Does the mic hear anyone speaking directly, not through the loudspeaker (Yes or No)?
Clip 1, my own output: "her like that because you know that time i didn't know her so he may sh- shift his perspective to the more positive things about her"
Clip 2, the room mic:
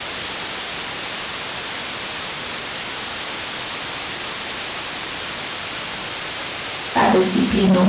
Yes